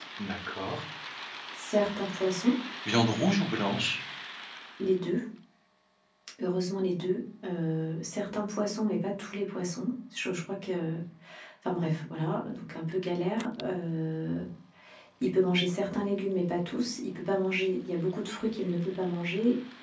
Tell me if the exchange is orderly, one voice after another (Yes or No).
Yes